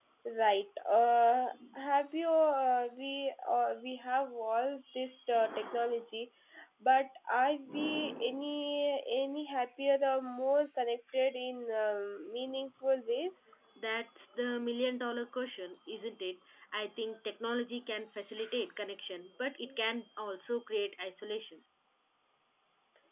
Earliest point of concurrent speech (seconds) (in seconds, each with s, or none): none